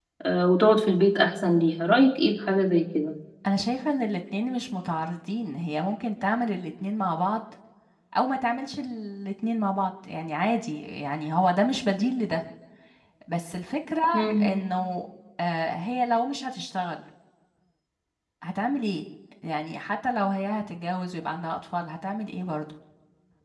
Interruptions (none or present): none